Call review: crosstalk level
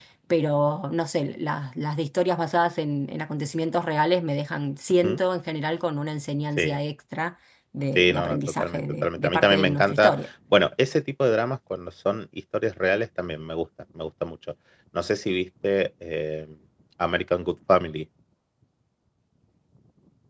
present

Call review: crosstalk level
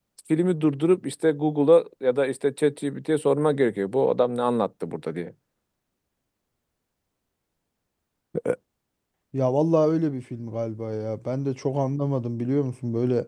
none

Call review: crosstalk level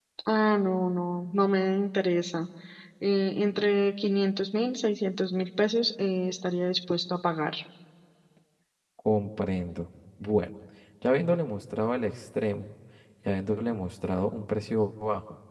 none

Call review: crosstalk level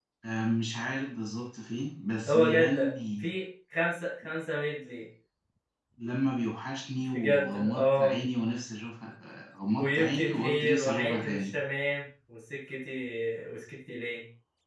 present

